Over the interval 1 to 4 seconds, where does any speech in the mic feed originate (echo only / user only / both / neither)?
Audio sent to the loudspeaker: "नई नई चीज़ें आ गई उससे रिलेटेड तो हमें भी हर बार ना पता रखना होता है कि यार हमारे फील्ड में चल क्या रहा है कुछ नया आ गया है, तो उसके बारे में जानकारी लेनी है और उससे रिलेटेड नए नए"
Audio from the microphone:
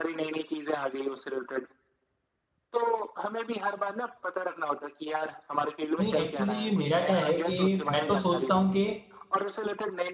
echo only